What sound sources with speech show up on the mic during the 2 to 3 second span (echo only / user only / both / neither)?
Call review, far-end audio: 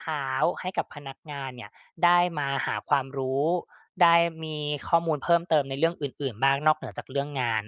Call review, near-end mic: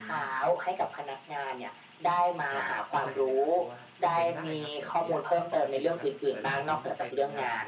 both